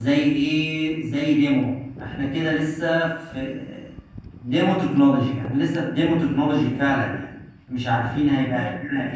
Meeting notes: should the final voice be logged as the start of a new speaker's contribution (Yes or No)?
No